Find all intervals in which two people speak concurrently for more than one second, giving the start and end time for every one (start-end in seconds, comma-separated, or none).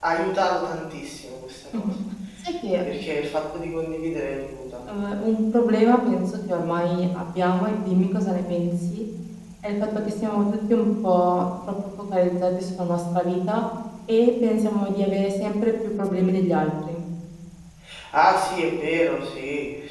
none